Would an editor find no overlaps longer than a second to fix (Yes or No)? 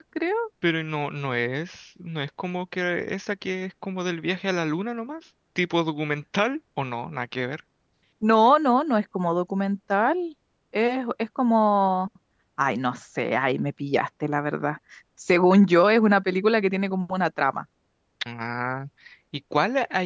Yes